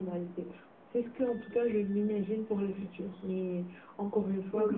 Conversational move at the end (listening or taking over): listening